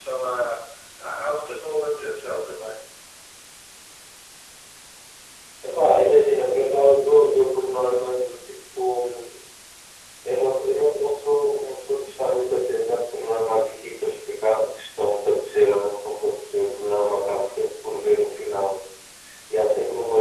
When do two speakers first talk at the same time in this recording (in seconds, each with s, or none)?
none